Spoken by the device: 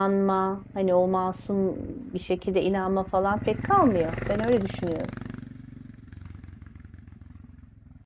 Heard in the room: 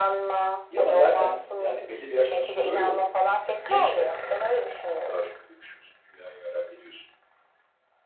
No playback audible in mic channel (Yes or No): No